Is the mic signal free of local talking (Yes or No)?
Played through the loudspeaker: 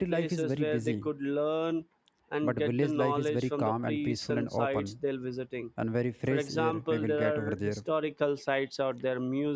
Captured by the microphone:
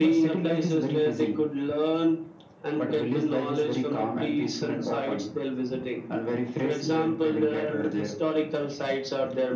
Yes